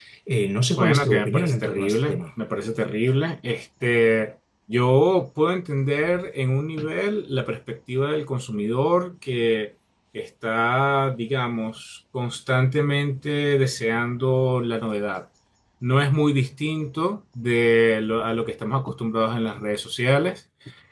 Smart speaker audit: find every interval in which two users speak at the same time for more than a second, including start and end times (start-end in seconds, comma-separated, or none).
0.8-2.2